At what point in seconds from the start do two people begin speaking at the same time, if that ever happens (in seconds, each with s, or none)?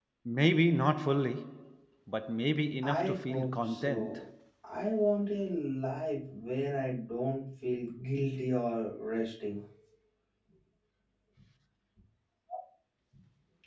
2.8 s